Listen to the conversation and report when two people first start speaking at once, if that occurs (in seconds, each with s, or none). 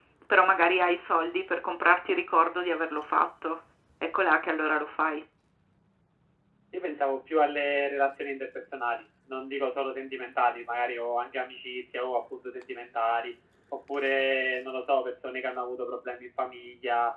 none